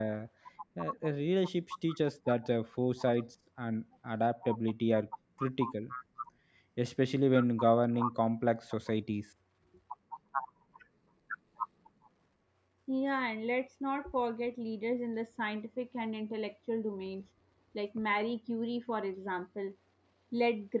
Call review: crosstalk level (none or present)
none